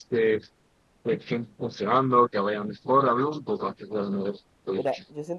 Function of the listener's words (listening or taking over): taking over